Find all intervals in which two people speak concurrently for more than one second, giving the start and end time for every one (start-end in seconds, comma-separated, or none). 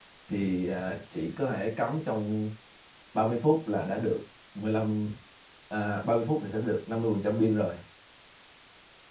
none